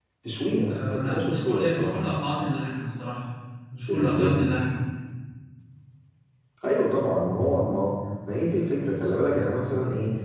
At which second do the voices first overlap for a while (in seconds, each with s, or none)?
0.7 s